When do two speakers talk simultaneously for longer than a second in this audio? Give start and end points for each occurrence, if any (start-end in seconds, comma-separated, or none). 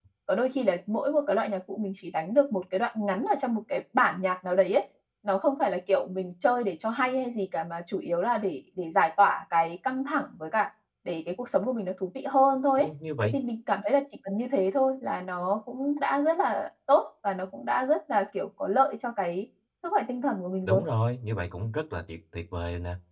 none